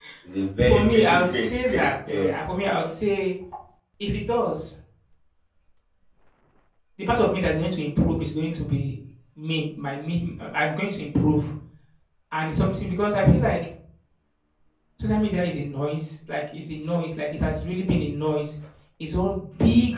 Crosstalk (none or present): present